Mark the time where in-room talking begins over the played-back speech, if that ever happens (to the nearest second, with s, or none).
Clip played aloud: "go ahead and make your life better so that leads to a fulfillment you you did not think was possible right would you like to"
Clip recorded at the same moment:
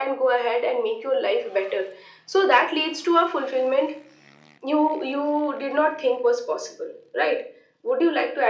none